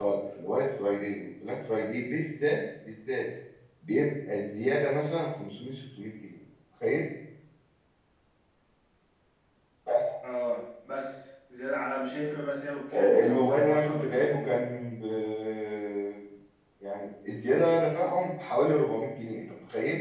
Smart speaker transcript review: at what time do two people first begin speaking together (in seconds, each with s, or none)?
12.9 s